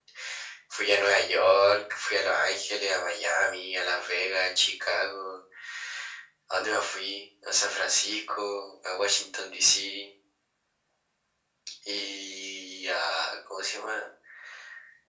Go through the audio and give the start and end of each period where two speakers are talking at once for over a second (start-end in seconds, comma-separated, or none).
none